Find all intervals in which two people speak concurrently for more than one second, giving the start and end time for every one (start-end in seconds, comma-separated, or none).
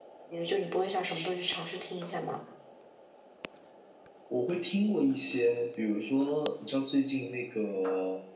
none